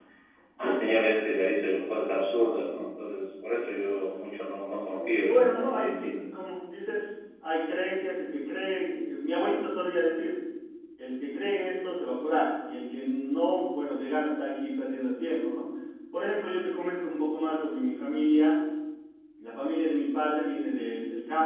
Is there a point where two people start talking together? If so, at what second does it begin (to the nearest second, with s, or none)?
5 s